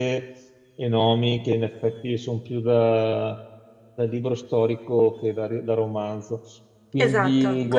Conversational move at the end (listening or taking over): taking over